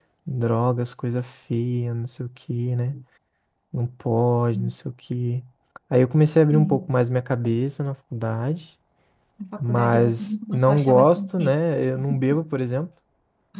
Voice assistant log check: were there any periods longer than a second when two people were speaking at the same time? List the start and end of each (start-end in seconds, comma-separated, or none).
9.6-11.6